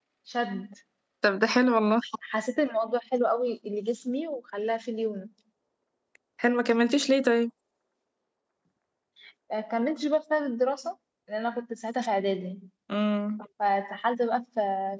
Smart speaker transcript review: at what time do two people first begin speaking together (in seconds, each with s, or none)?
none